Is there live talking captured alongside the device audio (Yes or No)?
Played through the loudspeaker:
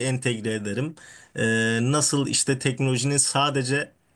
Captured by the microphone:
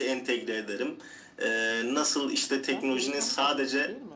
Yes